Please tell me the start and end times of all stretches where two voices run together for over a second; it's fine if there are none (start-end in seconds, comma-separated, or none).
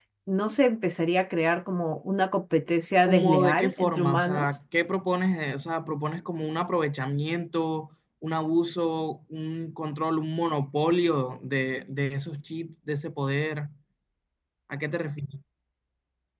3.1-4.6